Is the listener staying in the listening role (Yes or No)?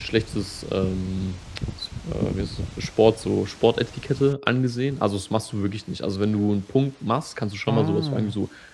Yes